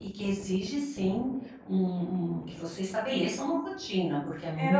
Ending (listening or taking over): taking over